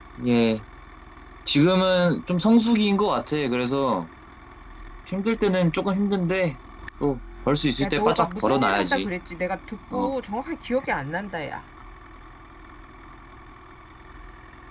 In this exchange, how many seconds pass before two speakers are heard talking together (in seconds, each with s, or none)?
7.8 s